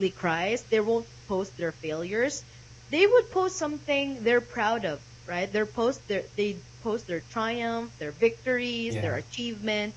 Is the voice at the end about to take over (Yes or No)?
No